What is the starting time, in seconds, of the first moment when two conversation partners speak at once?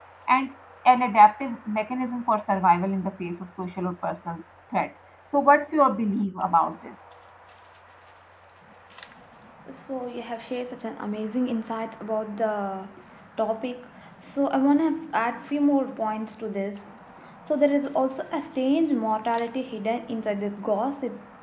none

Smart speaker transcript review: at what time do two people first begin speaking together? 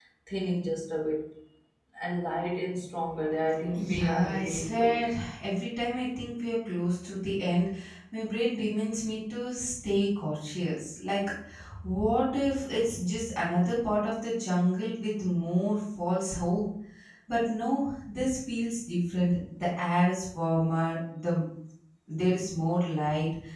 4 s

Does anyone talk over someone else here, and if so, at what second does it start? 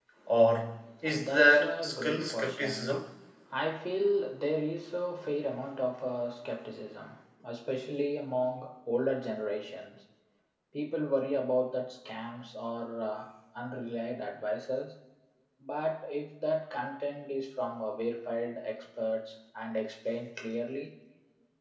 1 s

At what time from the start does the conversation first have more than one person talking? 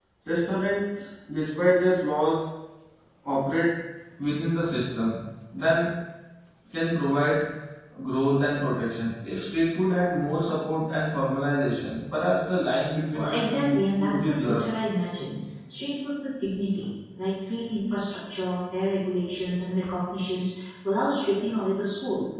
13 s

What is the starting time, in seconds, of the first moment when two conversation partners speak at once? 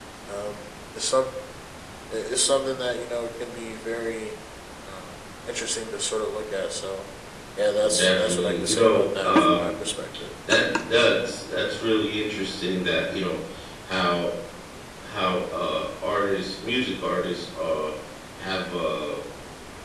8 s

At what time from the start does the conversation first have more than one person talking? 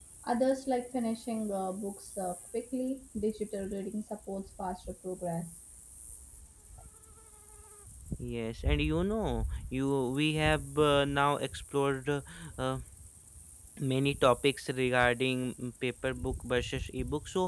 none

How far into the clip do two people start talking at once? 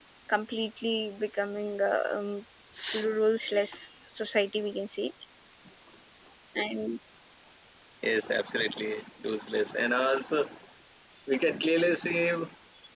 none

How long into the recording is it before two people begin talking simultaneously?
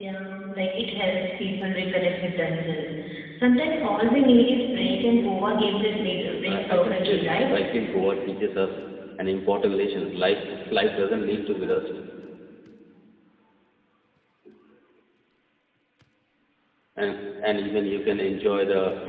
6 s

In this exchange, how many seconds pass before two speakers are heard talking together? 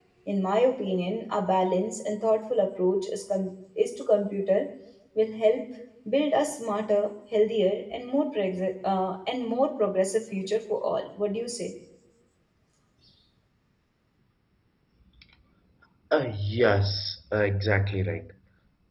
none

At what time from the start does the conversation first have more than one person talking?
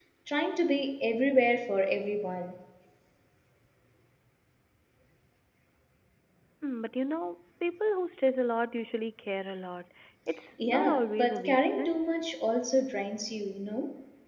11 s

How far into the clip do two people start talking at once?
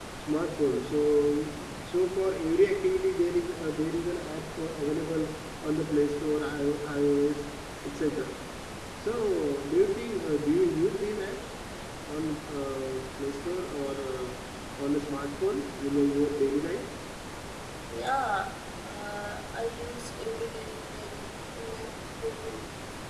none

